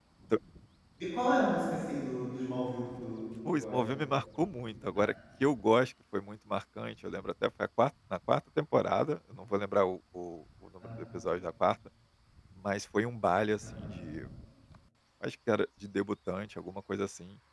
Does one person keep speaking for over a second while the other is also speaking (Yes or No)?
No